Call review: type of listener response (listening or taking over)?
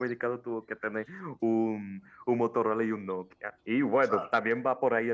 listening